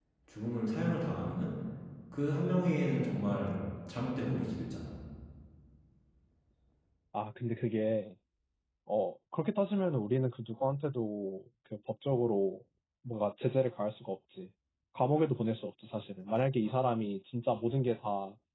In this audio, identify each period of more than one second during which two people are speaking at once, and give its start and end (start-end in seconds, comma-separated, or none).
none